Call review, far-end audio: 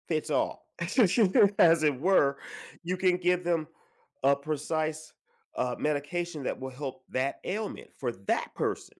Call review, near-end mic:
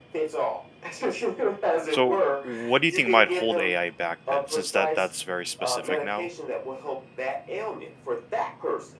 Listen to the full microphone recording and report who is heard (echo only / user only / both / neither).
both